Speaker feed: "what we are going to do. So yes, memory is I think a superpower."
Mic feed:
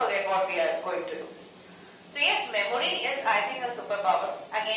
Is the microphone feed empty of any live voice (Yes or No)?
Yes